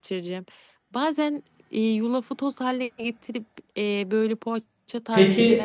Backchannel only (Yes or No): No